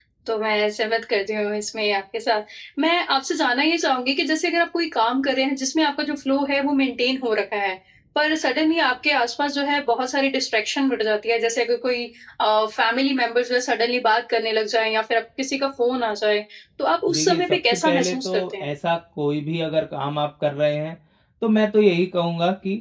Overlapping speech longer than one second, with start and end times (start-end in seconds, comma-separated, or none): 17.1-18.7